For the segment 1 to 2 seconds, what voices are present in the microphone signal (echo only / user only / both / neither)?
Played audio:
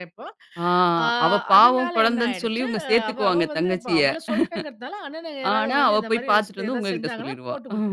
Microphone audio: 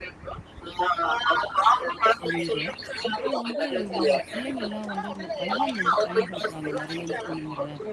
echo only